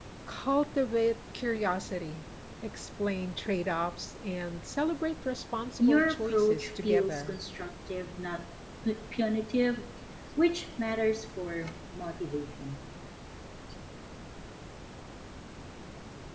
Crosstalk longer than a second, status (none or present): present